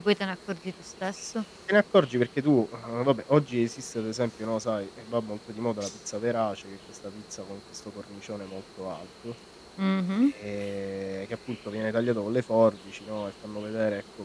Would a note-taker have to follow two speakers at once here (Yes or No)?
No